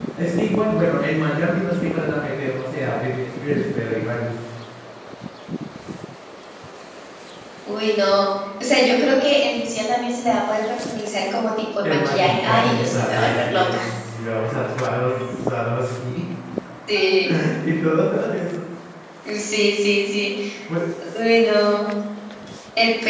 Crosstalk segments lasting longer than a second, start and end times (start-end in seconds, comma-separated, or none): 11.8-13.8